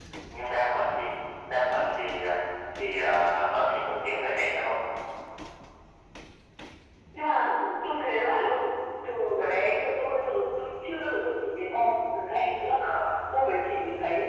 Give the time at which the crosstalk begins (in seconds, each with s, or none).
none